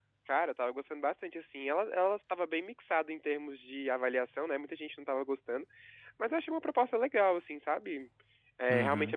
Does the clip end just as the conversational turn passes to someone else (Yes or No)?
No